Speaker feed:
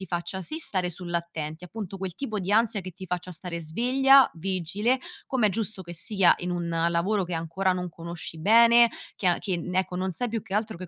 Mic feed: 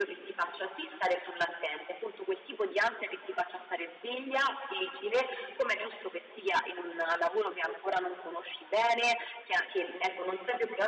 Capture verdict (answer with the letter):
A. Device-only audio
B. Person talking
A